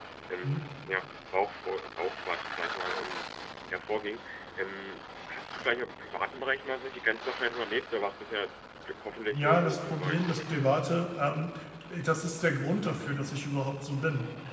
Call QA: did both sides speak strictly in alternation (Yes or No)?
No